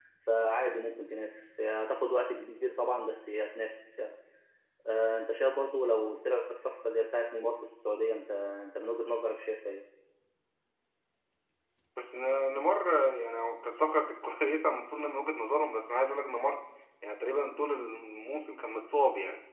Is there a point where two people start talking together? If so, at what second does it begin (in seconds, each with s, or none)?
none